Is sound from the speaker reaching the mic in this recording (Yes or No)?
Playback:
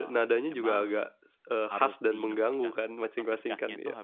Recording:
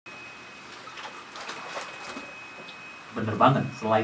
No